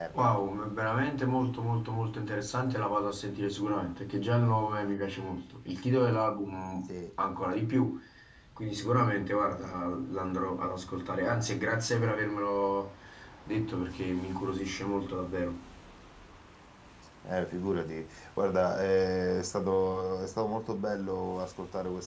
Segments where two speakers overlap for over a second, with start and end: none

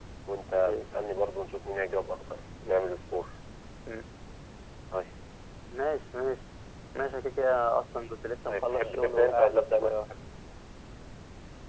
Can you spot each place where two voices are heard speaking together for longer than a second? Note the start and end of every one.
8.5-10.0

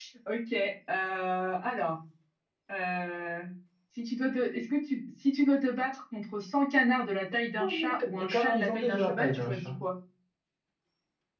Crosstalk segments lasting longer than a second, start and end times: 7.6-9.7

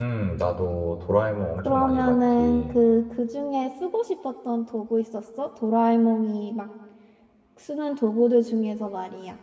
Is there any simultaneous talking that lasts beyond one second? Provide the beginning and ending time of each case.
1.6-2.8

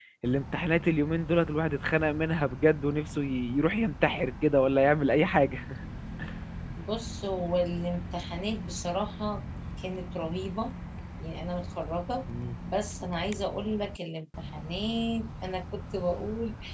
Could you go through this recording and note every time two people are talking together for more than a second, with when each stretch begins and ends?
none

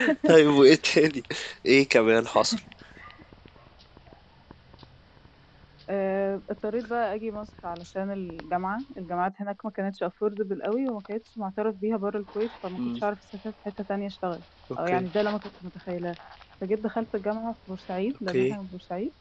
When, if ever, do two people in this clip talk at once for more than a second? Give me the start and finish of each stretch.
none

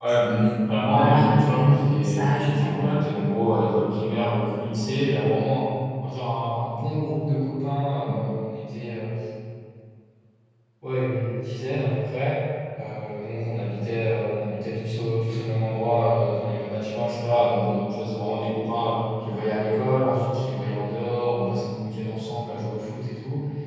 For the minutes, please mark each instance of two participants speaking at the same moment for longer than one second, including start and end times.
0.9-3.0

